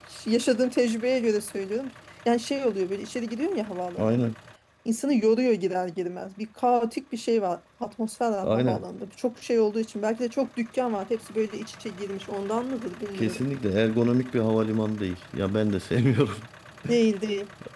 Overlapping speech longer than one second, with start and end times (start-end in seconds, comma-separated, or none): none